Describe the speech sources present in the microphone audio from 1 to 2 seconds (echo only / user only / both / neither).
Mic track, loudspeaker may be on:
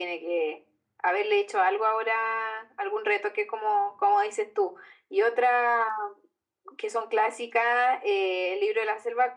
echo only